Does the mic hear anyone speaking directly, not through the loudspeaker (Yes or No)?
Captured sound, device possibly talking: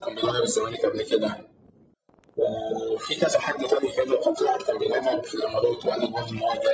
No